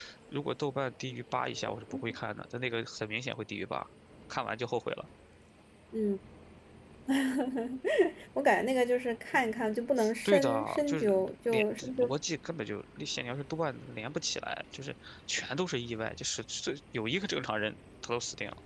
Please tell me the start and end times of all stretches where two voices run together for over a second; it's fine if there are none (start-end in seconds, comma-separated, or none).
10.2-12.1